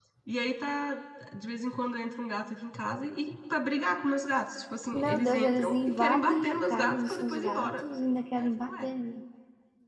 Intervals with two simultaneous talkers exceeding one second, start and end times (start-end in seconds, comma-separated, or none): 4.9-7.8